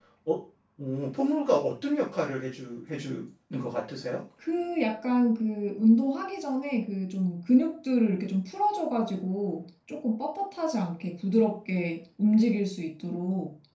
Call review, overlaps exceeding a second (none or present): none